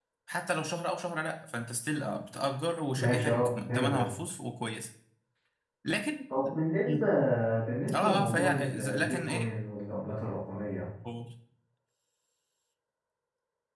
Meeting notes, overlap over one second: present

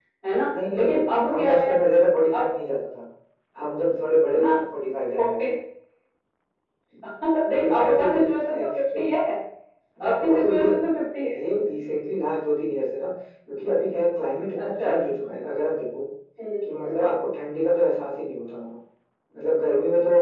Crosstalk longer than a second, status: present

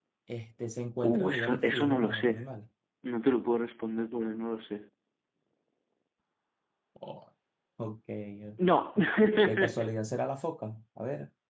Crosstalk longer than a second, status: present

